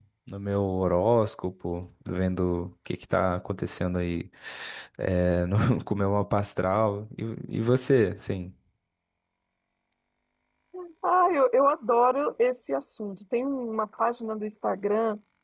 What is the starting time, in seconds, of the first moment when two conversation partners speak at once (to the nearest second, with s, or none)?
none